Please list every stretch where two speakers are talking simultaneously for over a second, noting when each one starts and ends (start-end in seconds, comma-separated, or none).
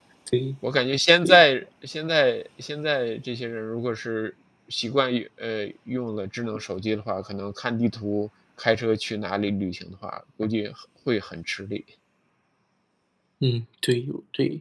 none